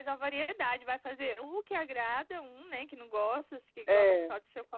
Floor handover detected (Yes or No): No